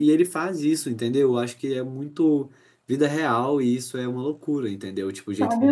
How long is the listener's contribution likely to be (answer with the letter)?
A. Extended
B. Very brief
A